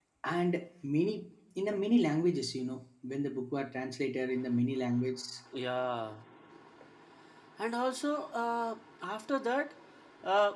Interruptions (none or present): none